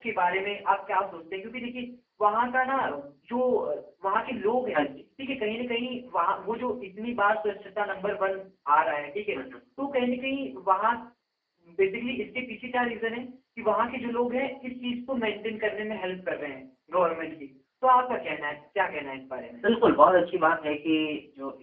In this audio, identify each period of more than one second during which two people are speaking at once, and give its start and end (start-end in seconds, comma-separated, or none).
none